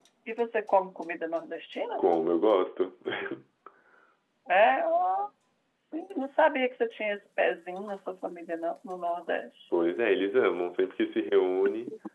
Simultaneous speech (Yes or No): No